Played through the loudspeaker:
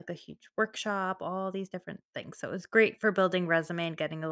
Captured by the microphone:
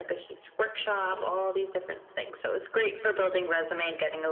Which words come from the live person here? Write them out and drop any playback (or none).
Mhm.